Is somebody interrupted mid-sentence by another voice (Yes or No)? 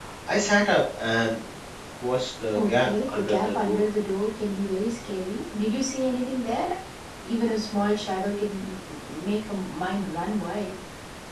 Yes